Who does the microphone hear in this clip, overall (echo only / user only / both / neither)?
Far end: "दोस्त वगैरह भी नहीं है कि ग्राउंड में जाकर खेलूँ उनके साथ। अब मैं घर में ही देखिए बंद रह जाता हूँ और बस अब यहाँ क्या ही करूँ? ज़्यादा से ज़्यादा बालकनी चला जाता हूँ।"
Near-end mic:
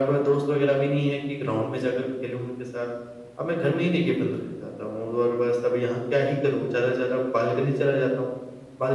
echo only